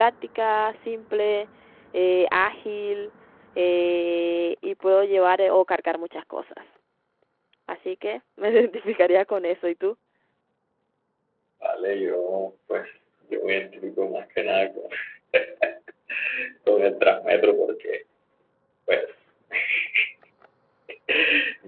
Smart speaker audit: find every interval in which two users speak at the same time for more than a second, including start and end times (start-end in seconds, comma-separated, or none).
none